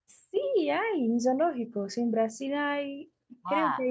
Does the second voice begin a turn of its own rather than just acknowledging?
Yes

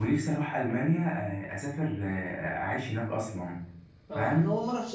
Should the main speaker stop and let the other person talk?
Yes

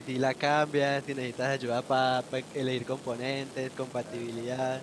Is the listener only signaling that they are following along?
No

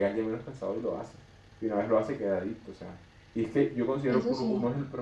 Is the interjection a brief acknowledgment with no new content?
Yes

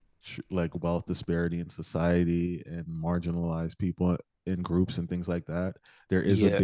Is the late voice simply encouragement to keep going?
Yes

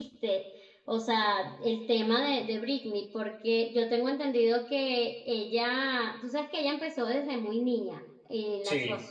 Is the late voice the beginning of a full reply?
No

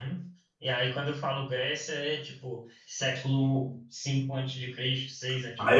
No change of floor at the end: No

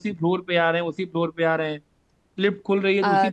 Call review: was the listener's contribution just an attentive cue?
Yes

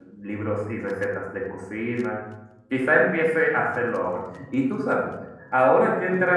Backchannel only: Yes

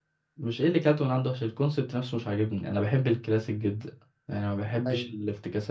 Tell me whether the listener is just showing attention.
Yes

